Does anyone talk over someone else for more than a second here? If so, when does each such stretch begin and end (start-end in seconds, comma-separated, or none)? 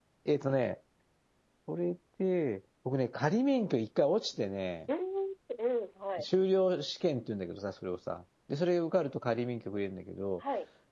none